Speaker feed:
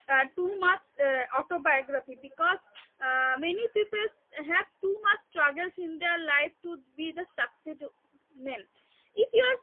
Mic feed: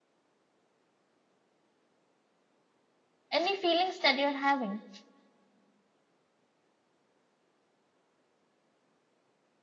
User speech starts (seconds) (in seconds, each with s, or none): 3.3 s